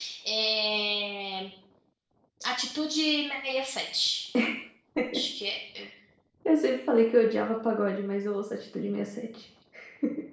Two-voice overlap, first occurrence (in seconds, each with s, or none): none